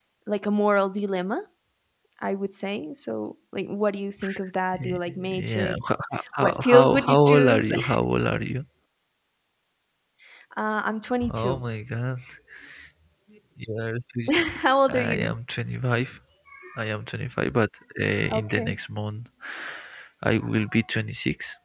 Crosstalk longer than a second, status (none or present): present